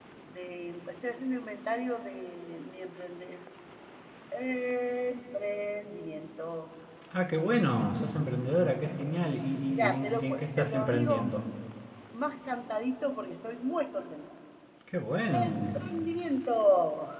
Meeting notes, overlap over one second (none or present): present